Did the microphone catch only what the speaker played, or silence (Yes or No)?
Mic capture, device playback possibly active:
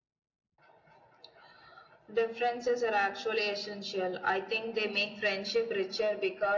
Yes